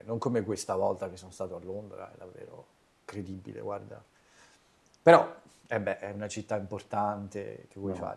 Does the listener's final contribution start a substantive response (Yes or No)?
Yes